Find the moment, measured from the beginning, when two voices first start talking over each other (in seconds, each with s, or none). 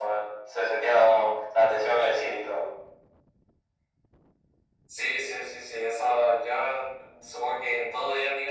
none